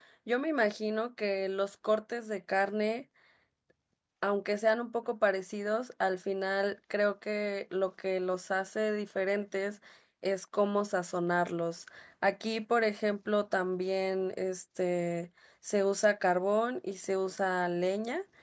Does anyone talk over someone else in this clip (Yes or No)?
No